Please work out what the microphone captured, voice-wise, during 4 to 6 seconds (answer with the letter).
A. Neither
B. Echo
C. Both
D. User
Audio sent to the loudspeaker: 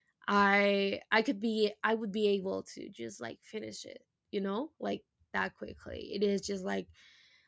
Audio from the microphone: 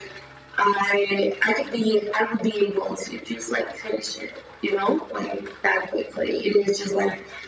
B